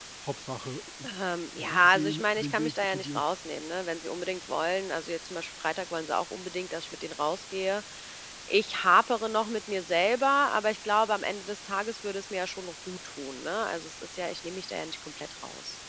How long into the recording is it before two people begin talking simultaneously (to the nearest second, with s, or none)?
2 s